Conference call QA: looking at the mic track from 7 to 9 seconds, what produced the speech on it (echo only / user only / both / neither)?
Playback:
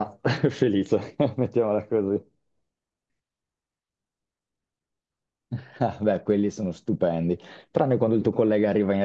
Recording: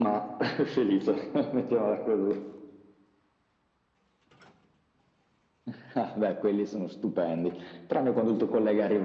echo only